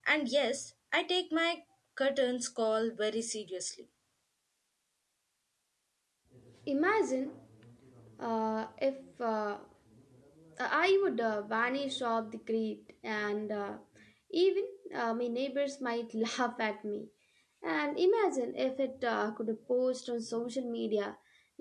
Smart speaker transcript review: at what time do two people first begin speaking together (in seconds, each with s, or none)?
none